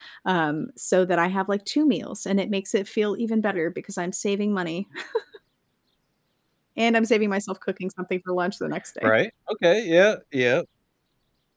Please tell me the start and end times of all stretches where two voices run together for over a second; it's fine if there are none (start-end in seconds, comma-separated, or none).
none